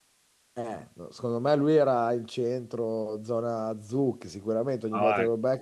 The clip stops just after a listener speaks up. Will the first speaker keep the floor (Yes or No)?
No